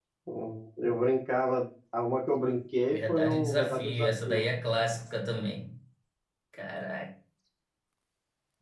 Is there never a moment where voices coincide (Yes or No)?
No